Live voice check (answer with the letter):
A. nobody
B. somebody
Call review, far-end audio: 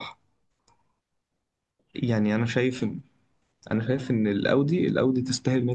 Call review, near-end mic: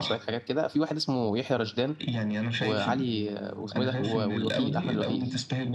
B